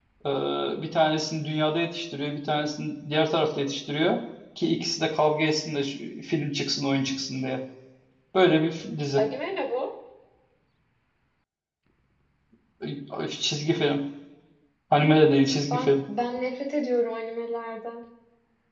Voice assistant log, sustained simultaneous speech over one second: none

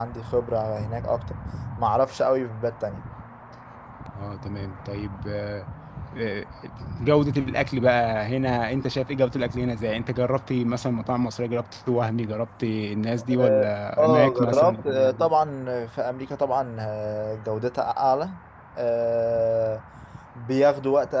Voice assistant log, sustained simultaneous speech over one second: present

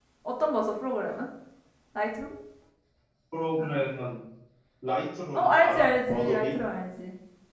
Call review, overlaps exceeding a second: present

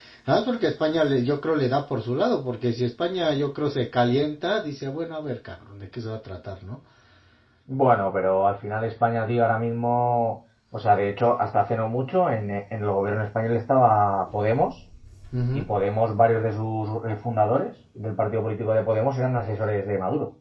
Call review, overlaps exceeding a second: none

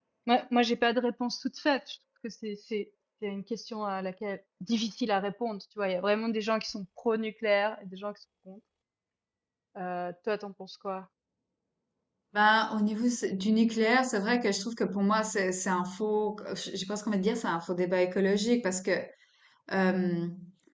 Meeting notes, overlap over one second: none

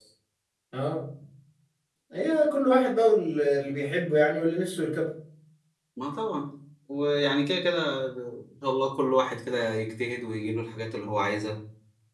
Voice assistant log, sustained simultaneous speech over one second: none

